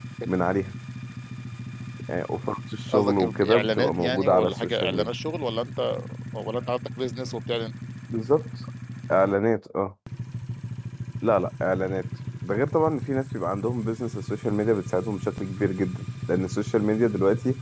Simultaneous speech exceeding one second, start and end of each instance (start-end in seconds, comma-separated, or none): 2.9-5.1